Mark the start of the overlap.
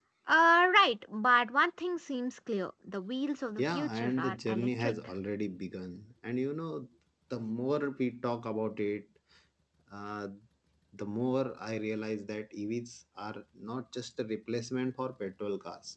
4 s

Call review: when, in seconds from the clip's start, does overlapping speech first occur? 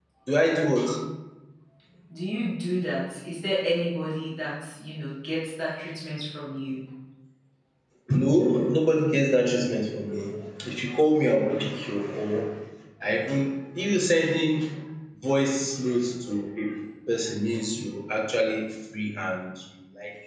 none

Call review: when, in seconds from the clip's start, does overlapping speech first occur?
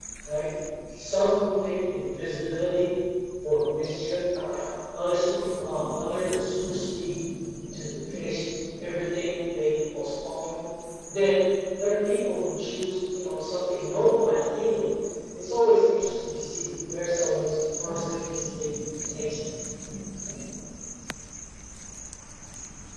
none

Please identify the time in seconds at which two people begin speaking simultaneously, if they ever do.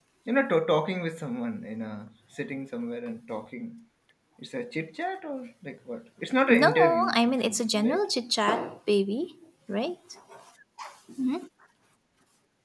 6 s

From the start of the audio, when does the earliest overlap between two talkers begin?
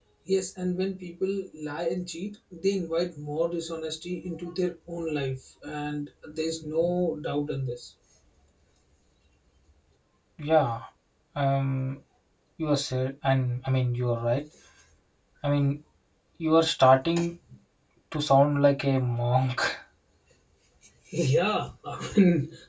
none

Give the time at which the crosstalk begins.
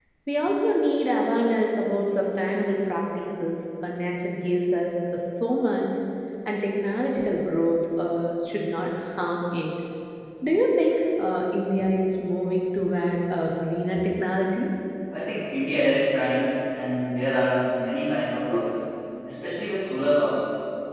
none

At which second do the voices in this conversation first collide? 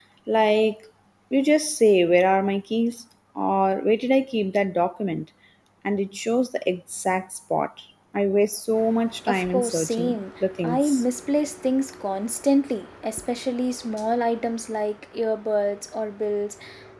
9 s

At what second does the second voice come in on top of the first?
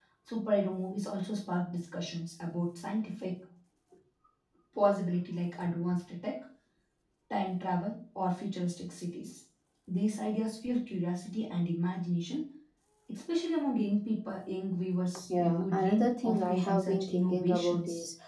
15 s

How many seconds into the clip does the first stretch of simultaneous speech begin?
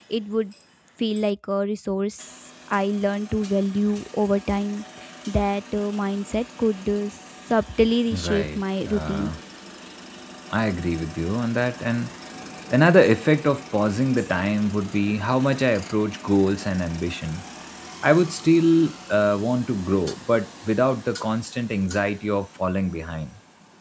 8 s

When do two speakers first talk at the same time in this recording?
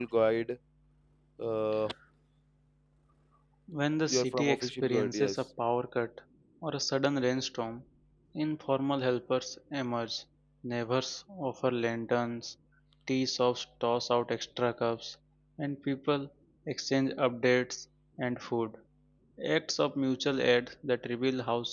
4 s

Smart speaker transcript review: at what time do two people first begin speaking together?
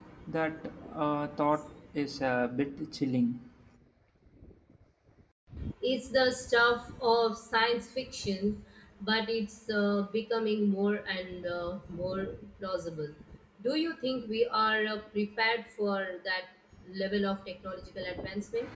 none

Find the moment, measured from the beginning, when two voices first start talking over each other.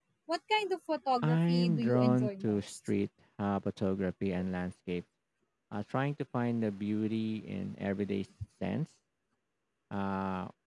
1 s

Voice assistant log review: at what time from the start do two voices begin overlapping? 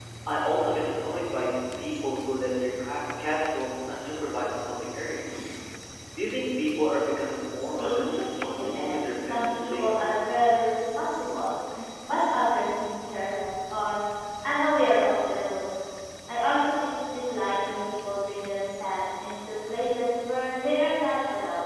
8 s

